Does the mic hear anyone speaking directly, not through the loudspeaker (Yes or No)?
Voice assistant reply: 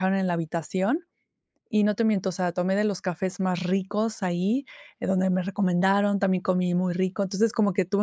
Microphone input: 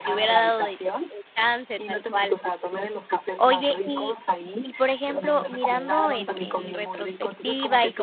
Yes